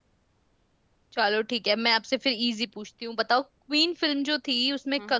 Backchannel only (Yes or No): Yes